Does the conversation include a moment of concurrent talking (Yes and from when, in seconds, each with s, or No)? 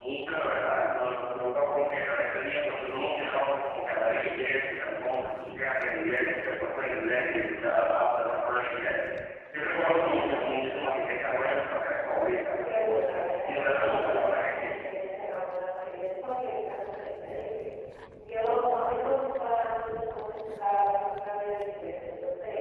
Yes, from 13.4 s